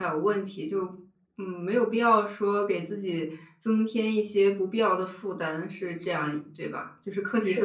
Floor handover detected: Yes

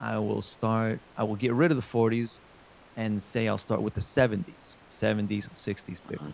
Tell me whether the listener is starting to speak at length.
No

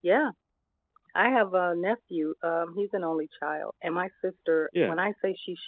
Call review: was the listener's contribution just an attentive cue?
Yes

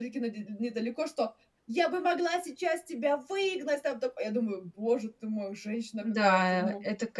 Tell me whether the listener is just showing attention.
No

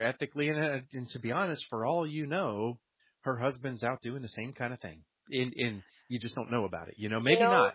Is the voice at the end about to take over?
Yes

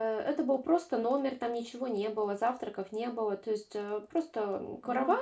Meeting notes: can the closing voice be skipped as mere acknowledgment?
Yes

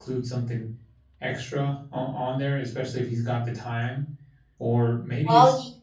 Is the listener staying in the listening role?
Yes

